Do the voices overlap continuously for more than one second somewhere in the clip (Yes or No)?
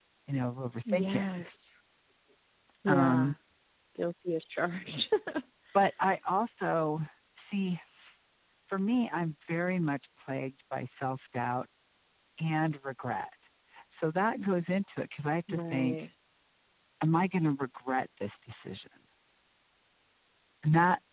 No